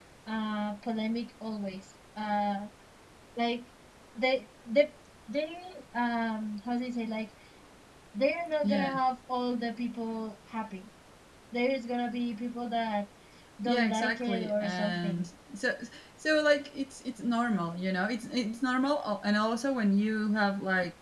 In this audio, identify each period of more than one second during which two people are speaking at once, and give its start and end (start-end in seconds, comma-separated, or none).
13.7-15.3